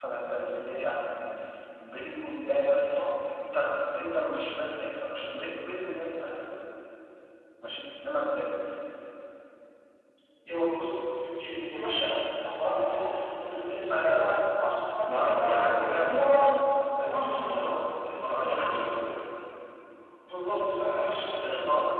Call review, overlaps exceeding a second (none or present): present